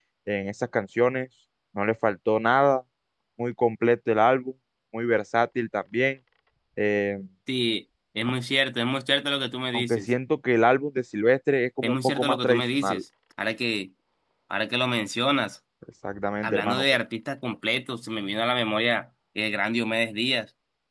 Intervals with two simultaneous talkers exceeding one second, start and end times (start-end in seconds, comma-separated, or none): 11.8-13.0